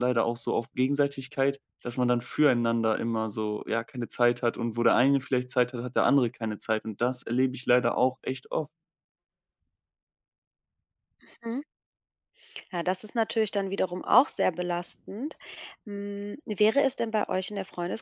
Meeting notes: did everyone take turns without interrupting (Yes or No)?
Yes